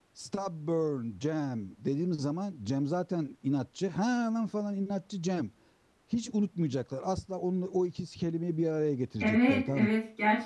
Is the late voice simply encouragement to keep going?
No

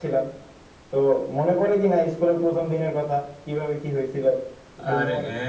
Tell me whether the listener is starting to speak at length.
Yes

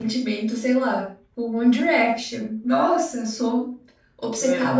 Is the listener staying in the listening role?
Yes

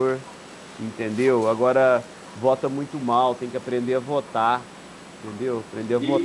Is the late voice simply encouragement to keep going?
No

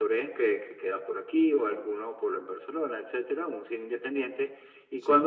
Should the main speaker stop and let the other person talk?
No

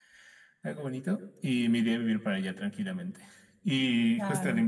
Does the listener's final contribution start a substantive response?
No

